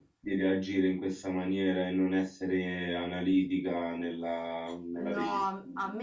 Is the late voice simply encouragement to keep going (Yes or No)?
No